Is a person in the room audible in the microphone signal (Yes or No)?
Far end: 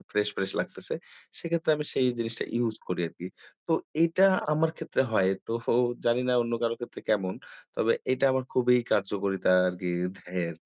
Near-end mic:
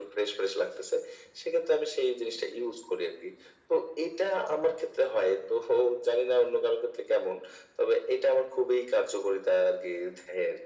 No